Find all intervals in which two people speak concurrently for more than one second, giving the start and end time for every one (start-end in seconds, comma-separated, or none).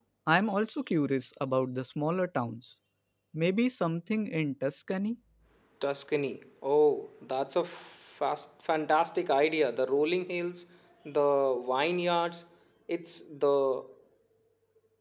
none